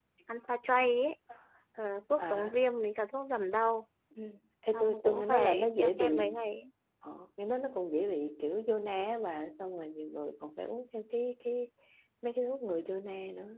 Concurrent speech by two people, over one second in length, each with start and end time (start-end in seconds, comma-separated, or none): 4.7-6.4